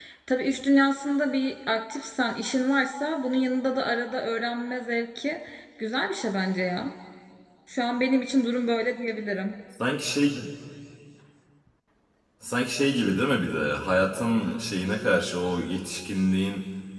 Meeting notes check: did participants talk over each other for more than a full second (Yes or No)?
No